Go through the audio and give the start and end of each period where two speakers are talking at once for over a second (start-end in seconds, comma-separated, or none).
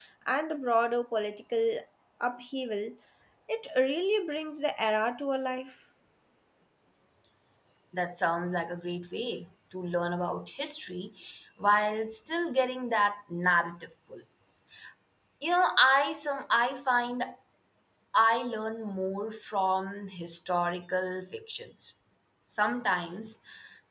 none